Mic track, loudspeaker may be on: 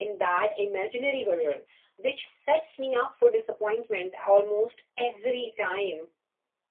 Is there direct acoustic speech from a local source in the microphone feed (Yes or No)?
Yes